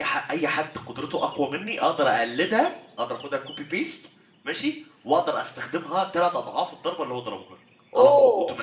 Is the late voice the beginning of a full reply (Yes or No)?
Yes